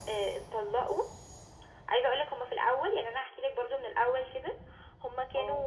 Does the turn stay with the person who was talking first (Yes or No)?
Yes